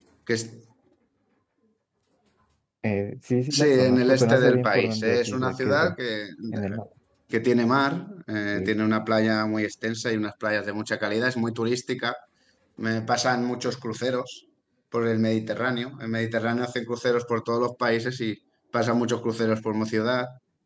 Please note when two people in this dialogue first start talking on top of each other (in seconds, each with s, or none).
3.5 s